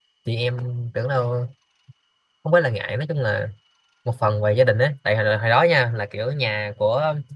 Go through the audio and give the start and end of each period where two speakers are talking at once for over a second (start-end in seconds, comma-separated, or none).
none